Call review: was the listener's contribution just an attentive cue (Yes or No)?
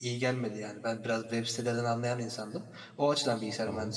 Yes